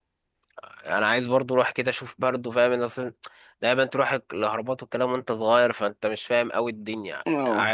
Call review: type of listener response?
taking over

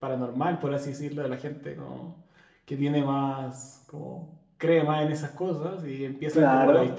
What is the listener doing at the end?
listening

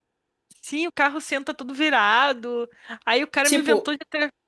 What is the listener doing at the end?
listening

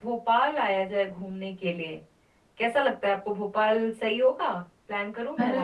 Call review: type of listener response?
taking over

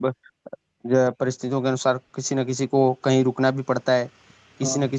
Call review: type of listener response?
listening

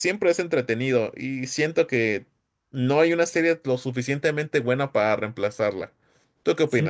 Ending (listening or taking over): taking over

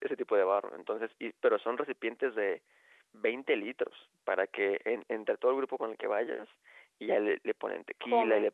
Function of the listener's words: listening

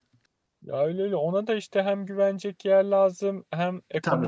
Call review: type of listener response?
listening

